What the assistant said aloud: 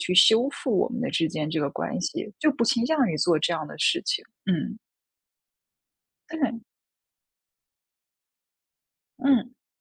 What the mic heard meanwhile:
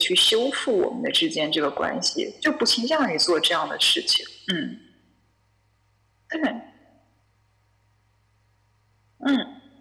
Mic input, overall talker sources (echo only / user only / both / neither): echo only